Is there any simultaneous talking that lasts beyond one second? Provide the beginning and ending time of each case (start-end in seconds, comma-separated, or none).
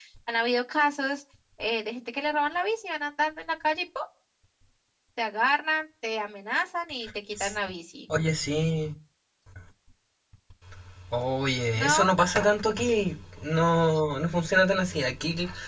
none